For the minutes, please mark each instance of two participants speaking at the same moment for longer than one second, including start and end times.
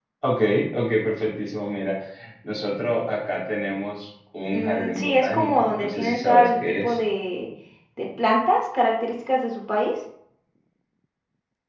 4.5-7.0

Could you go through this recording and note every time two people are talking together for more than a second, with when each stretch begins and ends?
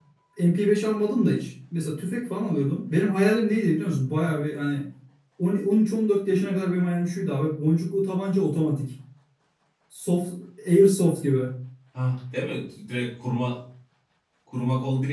none

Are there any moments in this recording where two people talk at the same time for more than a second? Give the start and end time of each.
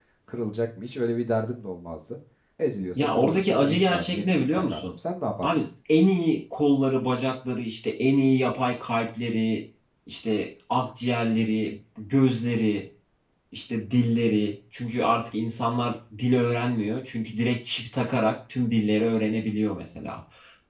3.0-4.9

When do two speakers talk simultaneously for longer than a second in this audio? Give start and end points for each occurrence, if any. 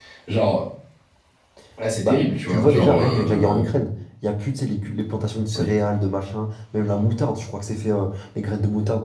2.0-3.6

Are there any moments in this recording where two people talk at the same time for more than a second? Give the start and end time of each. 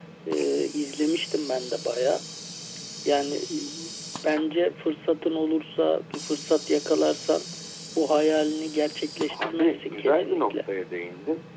9.3-10.6

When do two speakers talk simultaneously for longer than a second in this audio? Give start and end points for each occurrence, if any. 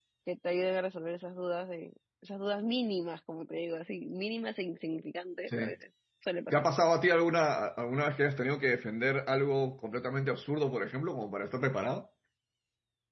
none

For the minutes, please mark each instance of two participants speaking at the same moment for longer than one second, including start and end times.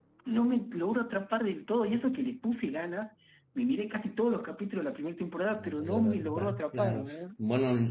5.5-7.1

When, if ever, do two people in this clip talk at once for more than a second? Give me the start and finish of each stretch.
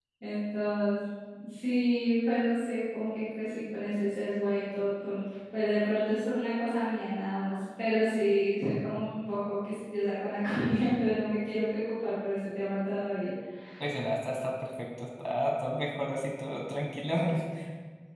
none

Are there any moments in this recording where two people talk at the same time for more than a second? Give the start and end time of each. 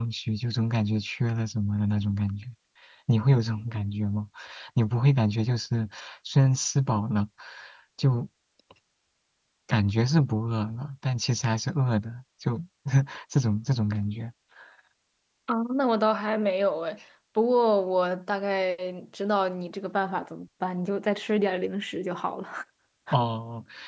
none

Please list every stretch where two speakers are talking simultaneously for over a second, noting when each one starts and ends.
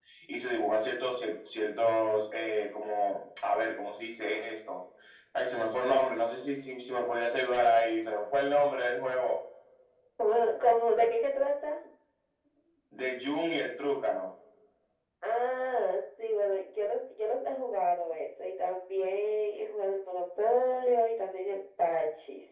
none

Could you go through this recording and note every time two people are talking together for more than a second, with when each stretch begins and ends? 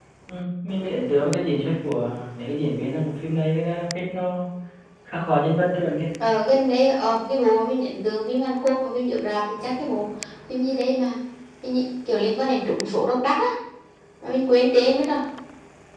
none

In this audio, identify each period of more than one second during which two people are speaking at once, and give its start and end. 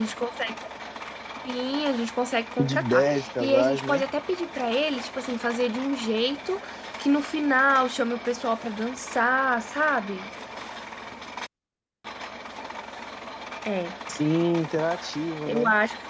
2.6-4.0

